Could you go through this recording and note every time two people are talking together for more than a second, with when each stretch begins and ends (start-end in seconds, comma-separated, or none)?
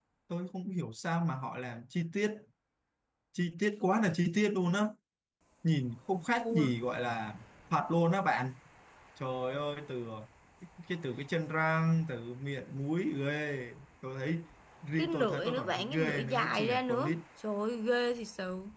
15.0-17.1